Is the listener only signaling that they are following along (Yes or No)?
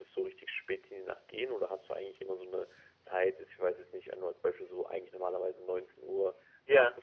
Yes